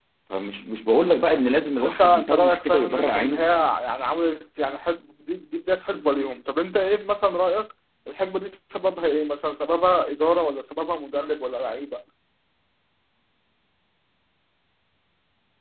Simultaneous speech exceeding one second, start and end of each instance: 1.8-3.4

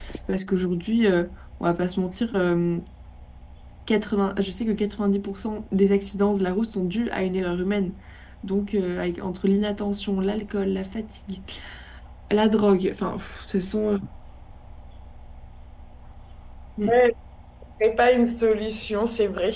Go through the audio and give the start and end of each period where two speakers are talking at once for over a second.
none

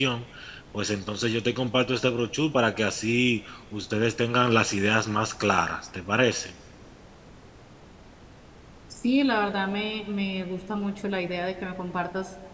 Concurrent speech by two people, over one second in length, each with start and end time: none

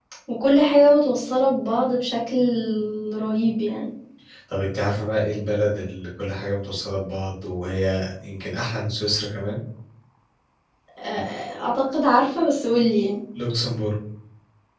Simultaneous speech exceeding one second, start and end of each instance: none

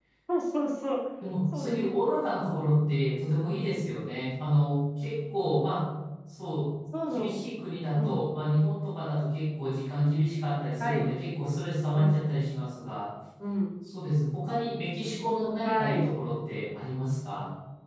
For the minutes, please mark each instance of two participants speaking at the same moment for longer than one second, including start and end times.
none

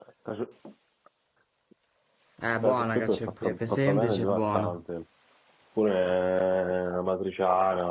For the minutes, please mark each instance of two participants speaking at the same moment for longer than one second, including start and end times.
2.6-4.7

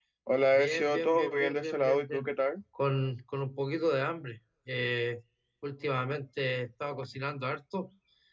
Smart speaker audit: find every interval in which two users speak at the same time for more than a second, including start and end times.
0.5-2.2

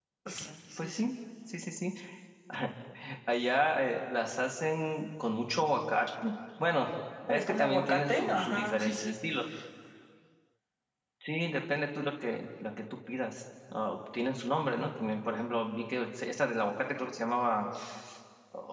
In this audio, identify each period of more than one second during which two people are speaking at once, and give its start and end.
7.3-9.1

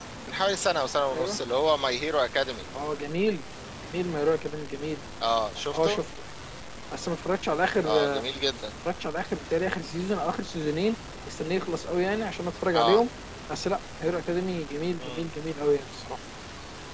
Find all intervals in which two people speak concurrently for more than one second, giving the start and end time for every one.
none

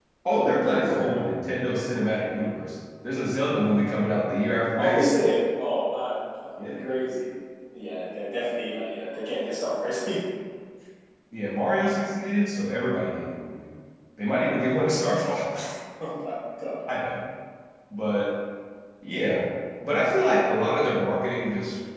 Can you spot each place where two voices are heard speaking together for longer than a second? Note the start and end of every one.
none

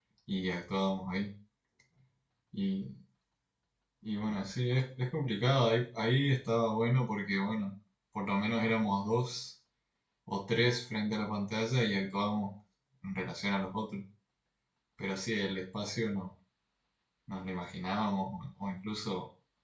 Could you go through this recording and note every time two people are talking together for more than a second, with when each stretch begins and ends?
none

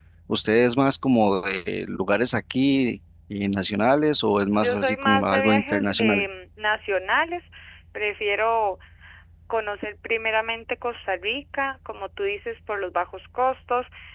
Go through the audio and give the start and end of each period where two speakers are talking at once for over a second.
4.6-6.2

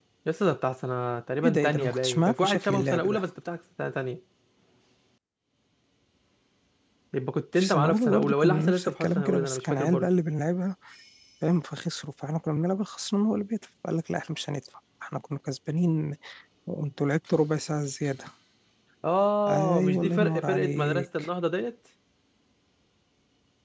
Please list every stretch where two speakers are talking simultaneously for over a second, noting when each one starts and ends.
1.4-3.2, 7.5-10.1, 19.5-21.3

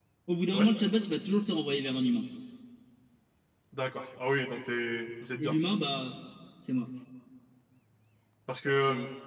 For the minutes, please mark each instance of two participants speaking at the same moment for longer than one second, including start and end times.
none

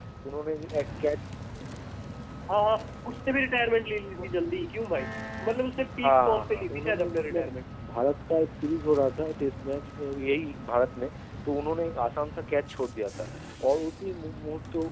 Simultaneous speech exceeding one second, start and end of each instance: 6.0-7.5

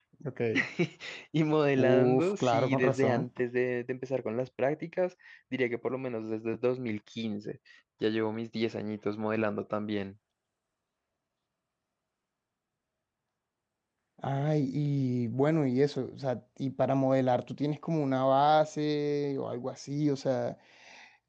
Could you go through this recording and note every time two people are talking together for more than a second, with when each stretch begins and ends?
1.8-3.3

